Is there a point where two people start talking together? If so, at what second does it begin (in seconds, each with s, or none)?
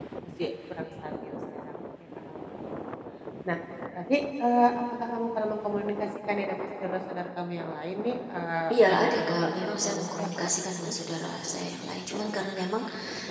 8.7 s